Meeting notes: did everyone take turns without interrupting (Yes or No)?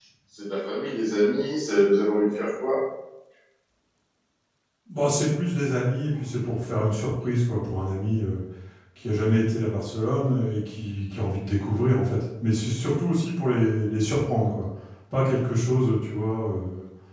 Yes